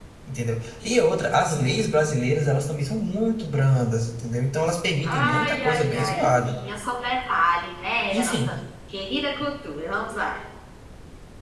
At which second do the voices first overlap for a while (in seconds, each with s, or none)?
5.0 s